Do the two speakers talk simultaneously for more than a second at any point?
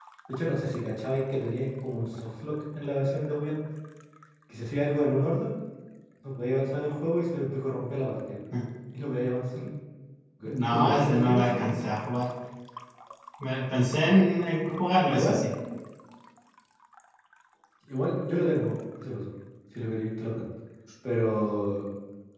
Yes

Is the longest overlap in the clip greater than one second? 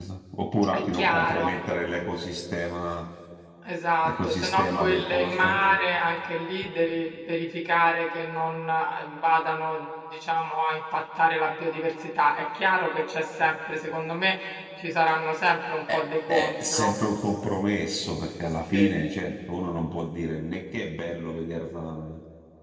Yes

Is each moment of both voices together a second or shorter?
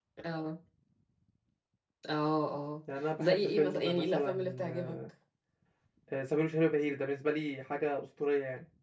No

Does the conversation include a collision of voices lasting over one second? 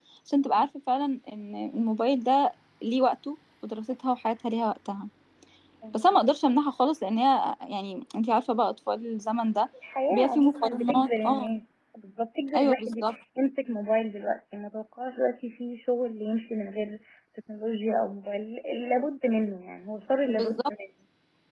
Yes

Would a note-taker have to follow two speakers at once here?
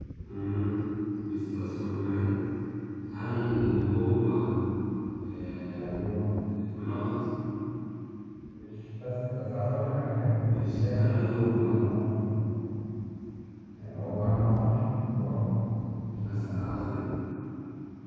Yes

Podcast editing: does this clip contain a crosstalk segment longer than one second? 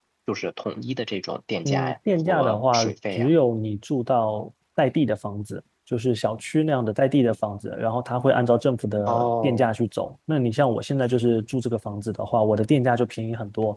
Yes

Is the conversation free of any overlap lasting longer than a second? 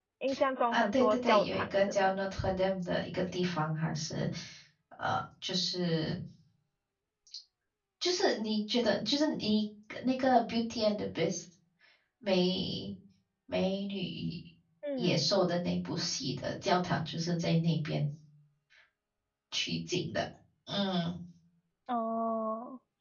No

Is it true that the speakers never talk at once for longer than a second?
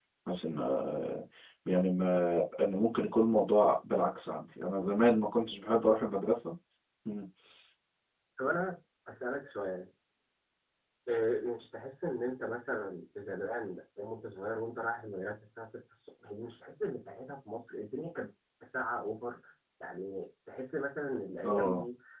Yes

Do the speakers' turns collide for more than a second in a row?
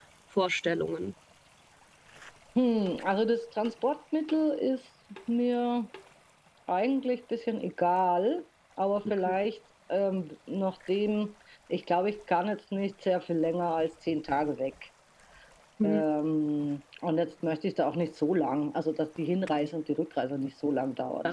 No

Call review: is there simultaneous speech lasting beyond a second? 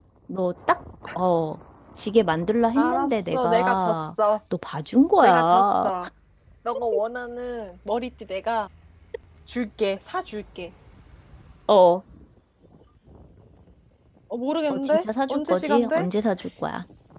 Yes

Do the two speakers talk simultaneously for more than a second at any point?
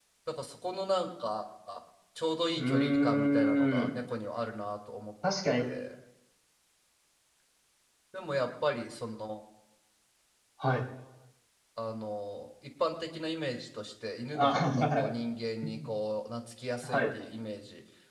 Yes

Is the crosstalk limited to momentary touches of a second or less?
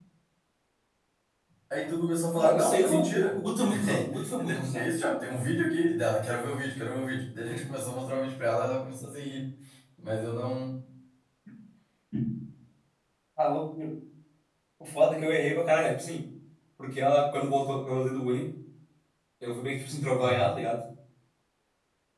No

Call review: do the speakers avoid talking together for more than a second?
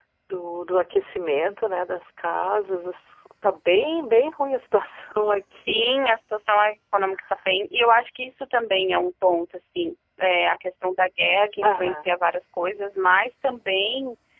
Yes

